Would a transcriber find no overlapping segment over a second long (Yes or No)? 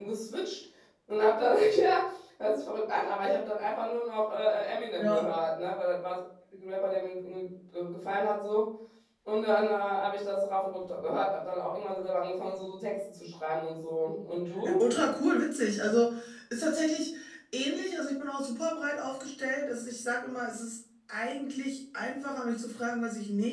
Yes